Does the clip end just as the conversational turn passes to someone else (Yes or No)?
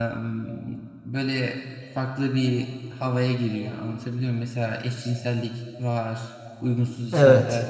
No